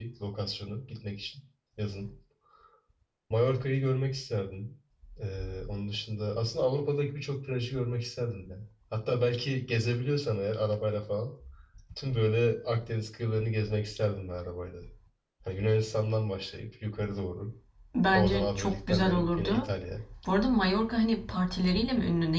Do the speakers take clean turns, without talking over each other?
No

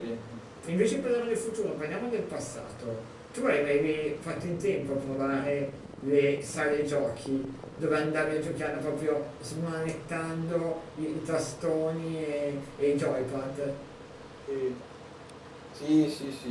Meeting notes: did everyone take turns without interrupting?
Yes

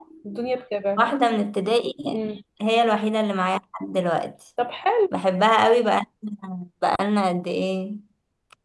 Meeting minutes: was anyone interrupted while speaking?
No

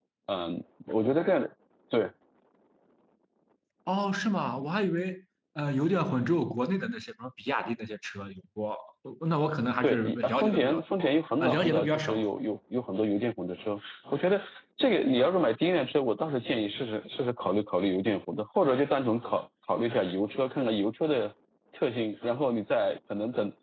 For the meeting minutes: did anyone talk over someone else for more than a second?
Yes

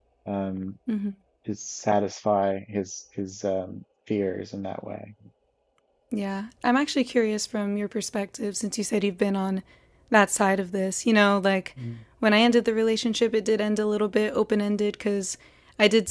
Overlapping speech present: No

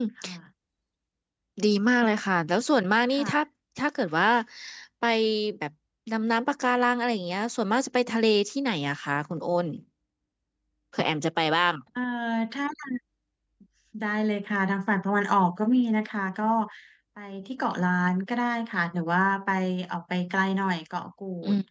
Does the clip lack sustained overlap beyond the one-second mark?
Yes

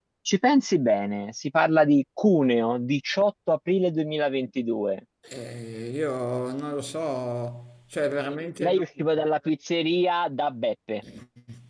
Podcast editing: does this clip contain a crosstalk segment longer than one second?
No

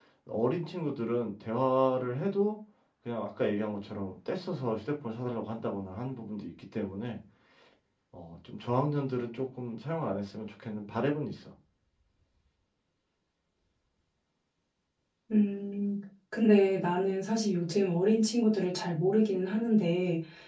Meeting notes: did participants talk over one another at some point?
No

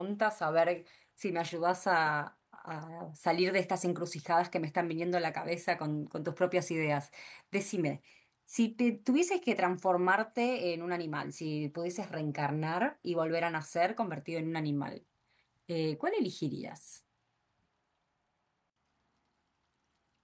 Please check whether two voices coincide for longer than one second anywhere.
No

